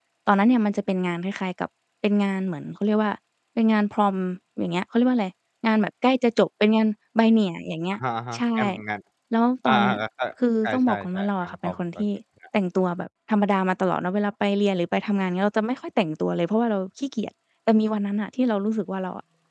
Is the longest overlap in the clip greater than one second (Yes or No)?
Yes